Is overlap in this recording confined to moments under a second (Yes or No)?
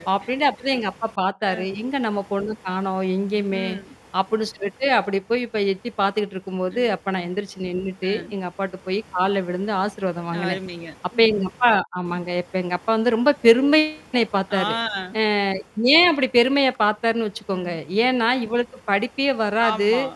Yes